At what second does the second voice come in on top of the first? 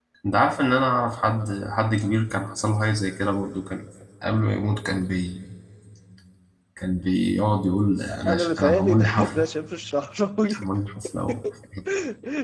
8 s

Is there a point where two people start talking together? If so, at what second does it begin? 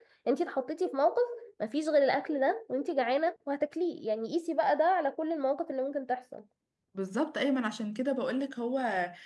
none

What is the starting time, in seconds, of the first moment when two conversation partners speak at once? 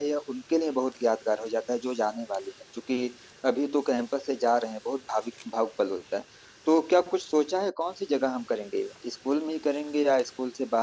none

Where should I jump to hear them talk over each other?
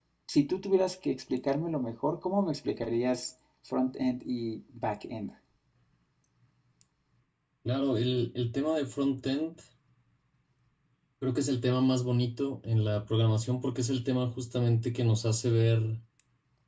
none

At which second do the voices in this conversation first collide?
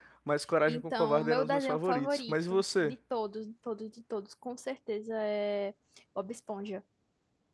1 s

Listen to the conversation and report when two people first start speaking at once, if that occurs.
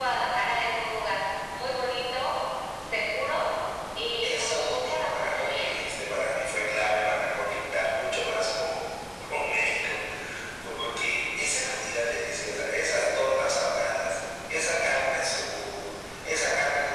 4 s

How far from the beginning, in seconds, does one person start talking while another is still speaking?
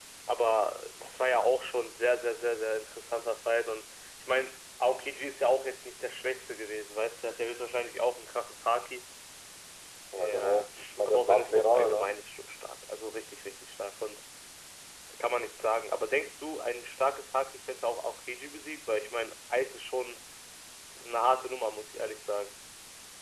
10 s

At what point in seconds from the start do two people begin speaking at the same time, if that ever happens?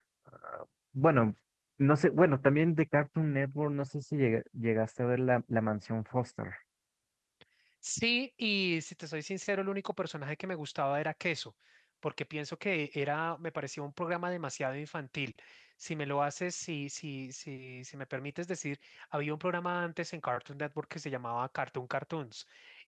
none

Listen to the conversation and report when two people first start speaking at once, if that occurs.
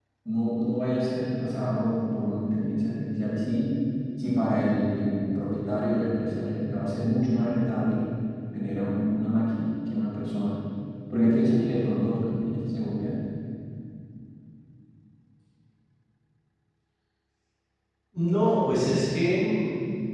none

